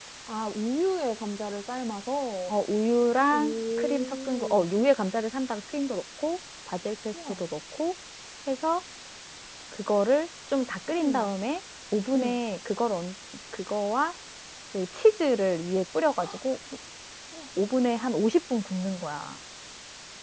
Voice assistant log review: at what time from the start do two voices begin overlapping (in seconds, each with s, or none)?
3.3 s